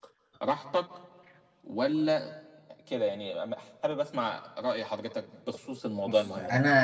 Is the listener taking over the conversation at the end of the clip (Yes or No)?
Yes